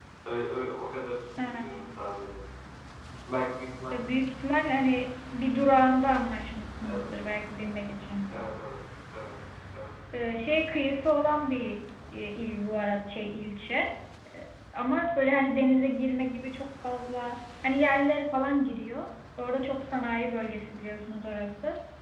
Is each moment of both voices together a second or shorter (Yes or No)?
Yes